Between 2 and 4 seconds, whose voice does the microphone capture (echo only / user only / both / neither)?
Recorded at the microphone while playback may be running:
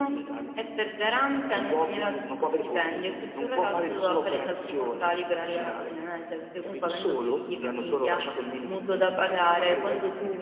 echo only